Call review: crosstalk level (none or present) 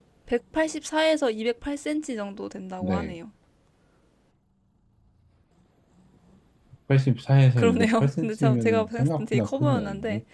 present